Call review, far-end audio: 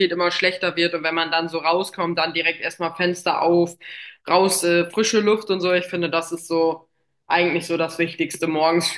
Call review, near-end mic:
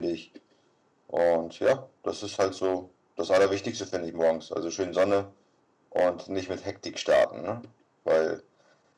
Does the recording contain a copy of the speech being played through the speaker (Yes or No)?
No